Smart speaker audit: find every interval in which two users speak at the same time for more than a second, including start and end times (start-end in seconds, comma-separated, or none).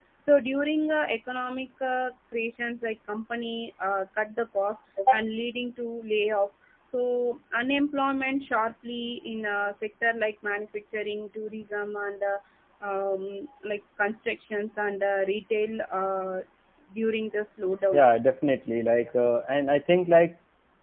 none